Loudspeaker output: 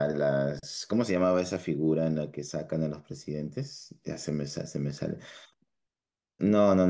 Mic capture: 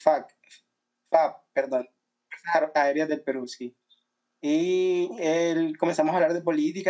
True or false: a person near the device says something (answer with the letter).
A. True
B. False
A